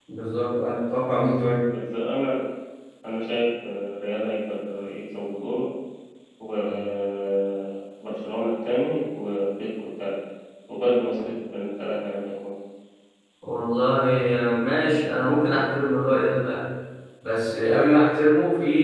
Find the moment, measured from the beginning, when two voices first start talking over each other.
none

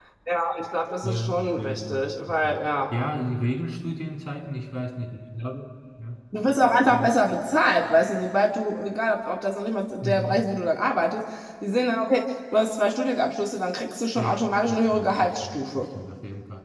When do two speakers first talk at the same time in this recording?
1.0 s

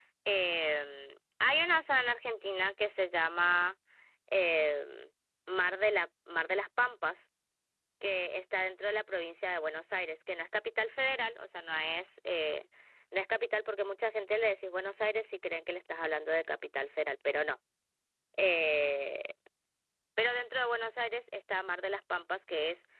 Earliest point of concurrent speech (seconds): none

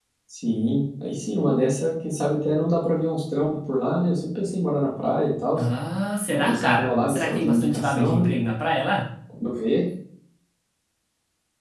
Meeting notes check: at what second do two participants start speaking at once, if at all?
6.3 s

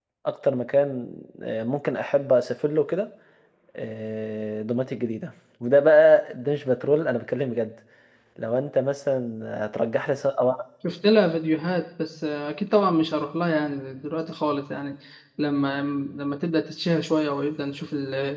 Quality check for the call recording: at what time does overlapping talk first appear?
none

